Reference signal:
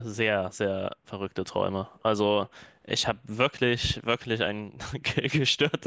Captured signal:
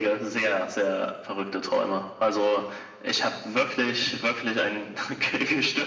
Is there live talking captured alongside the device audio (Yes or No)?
No